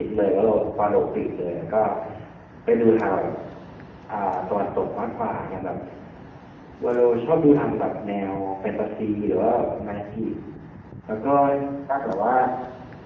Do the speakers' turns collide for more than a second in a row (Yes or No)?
No